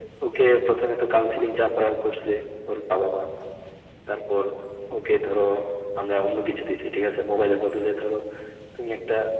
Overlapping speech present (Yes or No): No